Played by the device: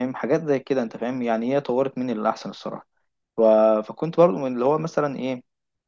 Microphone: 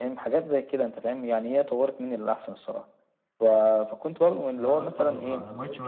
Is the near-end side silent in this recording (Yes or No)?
No